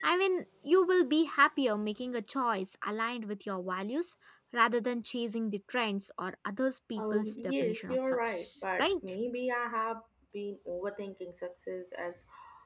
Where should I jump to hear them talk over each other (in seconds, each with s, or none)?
7.0 s